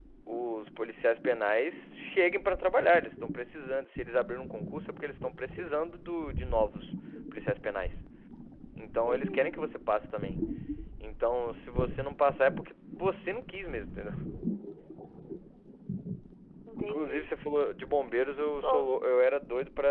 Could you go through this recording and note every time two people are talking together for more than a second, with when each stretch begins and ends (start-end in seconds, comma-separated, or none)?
none